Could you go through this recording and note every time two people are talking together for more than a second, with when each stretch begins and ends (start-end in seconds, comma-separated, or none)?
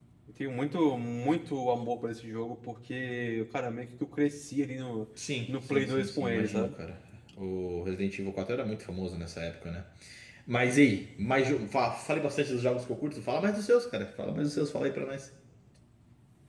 5.5-6.7